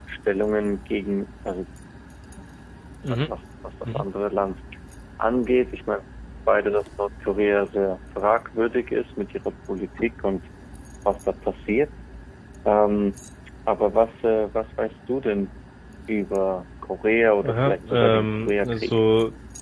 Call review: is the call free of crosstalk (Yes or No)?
No